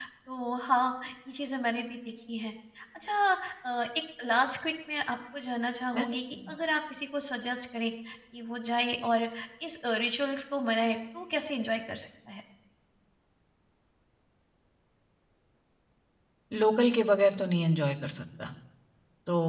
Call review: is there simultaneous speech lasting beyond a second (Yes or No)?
No